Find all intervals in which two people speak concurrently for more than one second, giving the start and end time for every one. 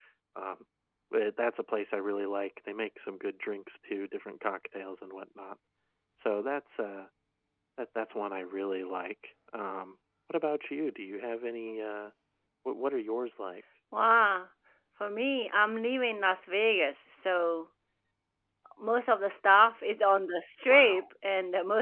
none

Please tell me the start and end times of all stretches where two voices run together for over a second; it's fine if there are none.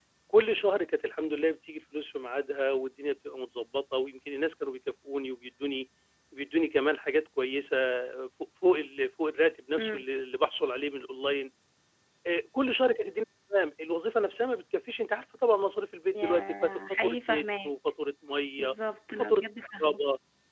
16.1-17.7

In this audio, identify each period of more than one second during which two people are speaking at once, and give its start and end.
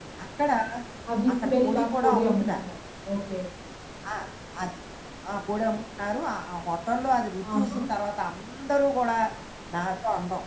1.3-2.6

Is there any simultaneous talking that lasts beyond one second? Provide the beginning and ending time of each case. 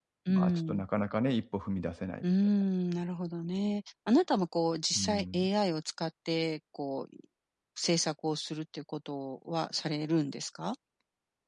none

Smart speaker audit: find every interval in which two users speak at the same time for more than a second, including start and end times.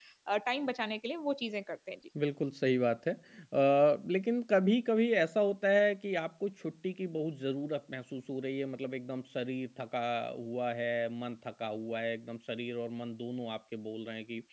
none

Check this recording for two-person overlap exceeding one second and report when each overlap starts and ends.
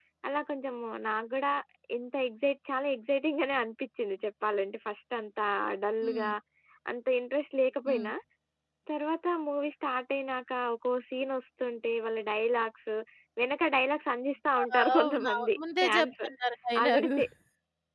14.8-16.1

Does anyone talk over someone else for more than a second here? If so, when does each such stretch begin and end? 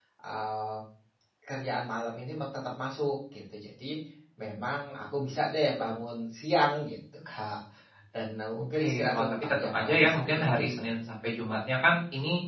8.8-10.9

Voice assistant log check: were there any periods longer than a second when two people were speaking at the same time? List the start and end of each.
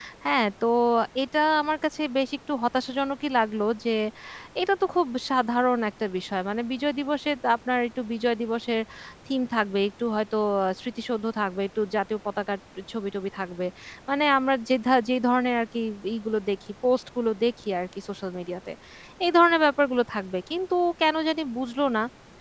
none

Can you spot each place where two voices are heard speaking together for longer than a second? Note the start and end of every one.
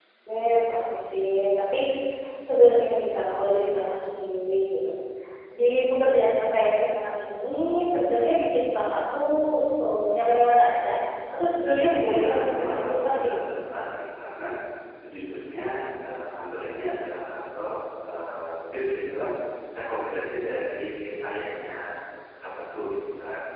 12.0-13.4

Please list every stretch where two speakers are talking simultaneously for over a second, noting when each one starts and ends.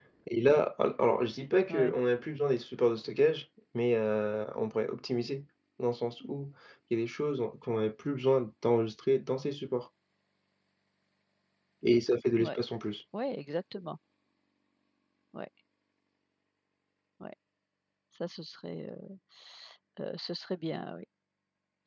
none

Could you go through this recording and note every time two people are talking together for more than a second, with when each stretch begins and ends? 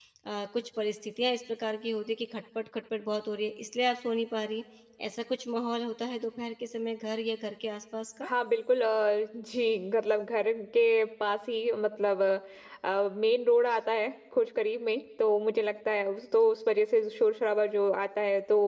none

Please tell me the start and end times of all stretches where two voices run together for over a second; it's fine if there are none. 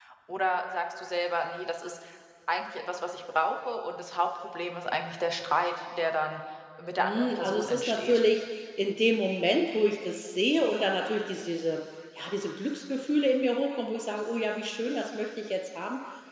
7.0-8.2

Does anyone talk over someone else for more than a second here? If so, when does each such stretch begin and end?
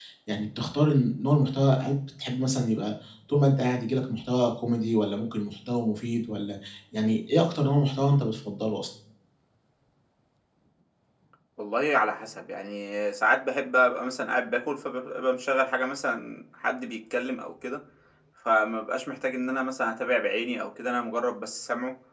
none

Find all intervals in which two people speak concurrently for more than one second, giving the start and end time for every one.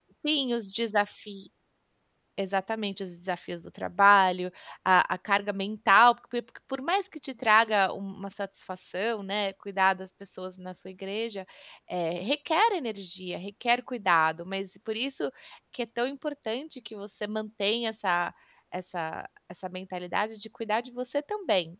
none

